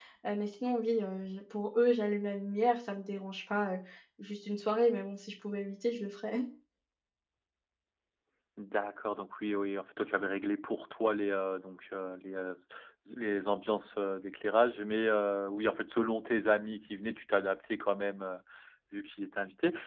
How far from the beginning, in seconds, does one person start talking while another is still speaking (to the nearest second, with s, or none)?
none